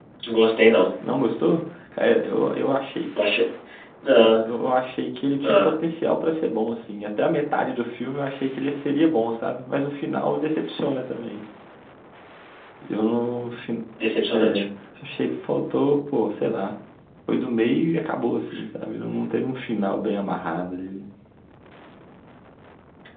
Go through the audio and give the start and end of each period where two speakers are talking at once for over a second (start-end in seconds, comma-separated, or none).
none